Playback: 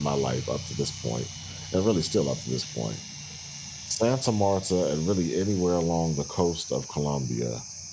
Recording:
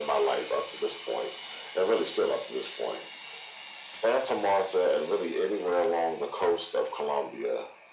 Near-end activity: none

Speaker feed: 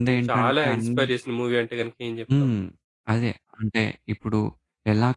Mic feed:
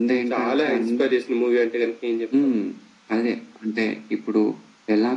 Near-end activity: none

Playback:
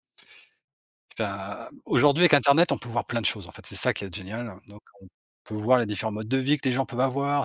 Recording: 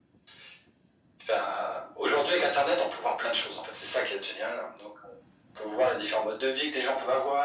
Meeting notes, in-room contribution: none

